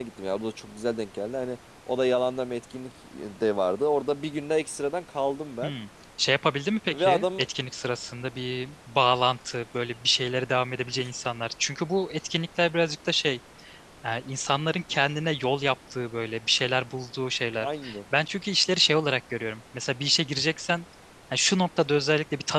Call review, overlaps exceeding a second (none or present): none